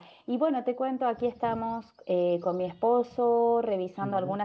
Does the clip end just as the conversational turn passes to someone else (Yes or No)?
No